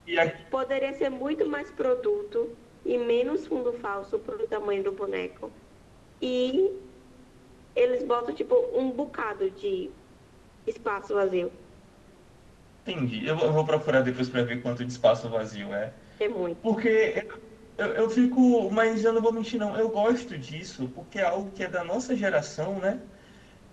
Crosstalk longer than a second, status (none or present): none